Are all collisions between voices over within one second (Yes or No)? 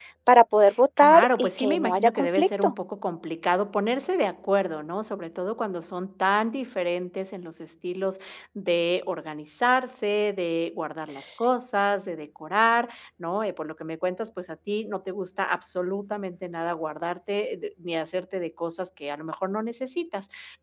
No